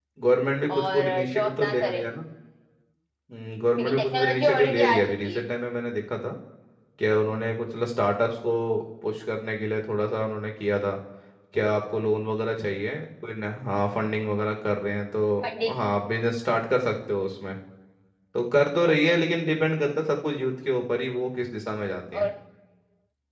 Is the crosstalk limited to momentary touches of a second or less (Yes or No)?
No